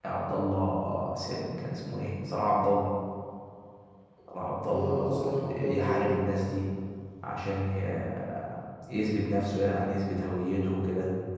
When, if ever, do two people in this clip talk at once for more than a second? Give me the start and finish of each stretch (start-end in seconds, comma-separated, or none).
4.7-6.2